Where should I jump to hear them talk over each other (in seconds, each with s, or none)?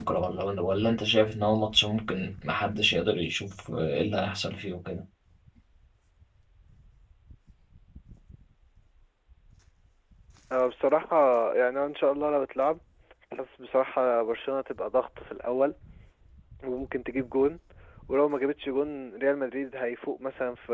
none